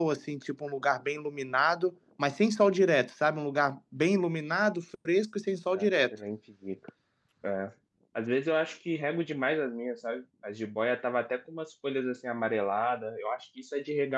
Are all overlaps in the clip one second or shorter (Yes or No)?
Yes